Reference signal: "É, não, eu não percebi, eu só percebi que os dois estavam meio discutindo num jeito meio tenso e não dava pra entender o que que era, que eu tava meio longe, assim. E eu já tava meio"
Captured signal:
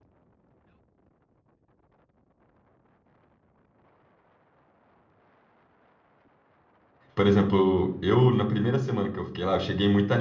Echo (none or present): none